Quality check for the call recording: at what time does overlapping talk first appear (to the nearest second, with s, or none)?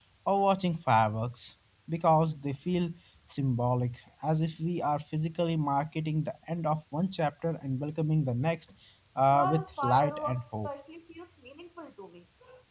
9 s